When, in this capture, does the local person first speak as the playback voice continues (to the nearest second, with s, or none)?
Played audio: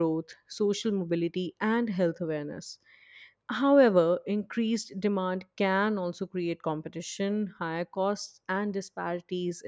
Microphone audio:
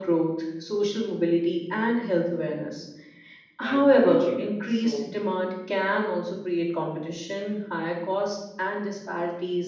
4 s